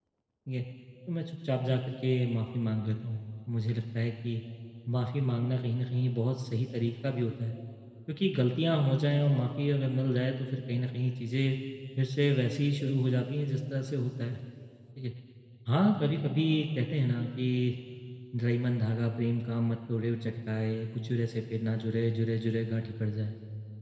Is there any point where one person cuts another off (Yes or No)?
No